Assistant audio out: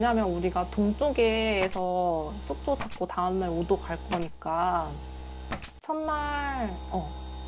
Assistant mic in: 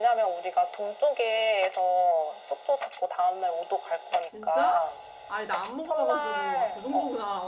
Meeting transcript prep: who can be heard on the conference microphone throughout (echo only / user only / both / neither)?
both